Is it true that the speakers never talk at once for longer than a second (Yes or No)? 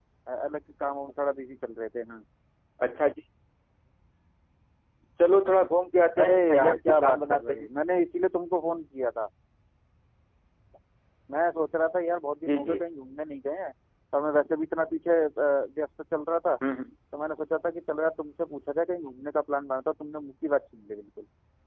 No